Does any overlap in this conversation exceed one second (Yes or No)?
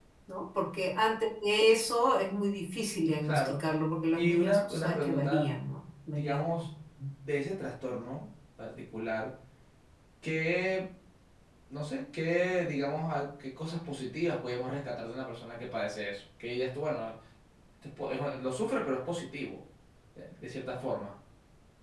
Yes